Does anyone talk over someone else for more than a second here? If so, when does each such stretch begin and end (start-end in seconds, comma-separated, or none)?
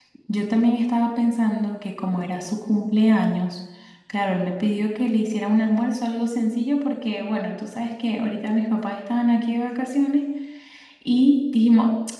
none